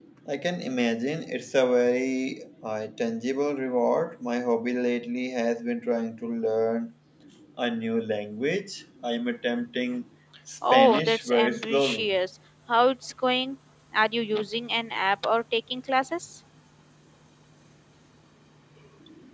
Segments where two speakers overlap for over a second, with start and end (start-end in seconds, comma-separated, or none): 10.7-12.1